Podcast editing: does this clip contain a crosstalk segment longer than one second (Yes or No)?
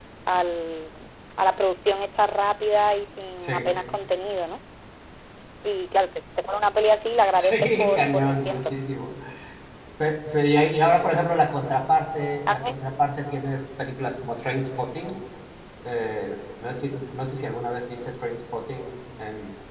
Yes